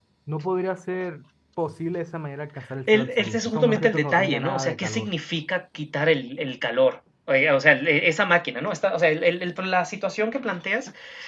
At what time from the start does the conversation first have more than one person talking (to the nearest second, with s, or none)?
3 s